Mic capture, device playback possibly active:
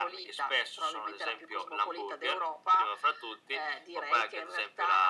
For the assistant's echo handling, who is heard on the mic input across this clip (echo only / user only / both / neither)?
echo only